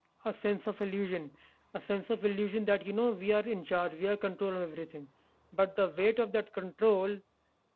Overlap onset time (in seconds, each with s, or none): none